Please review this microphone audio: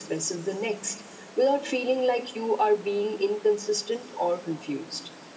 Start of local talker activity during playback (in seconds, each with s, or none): none